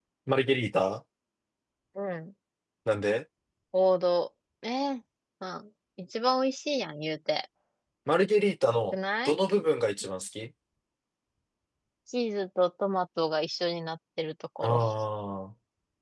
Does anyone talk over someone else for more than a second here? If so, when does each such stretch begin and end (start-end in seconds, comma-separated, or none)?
none